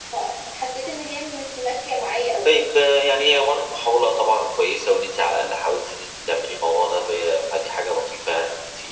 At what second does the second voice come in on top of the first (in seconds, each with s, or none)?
none